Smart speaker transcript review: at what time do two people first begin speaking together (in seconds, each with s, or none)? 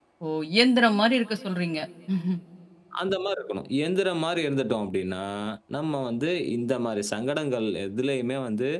none